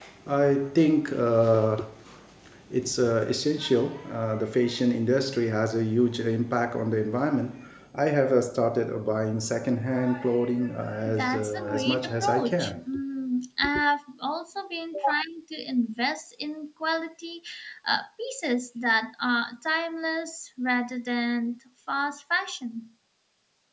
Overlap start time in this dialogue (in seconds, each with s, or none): 11.1 s